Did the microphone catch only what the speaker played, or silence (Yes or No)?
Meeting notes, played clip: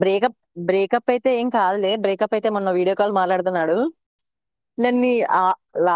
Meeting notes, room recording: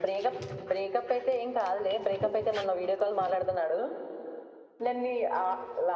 No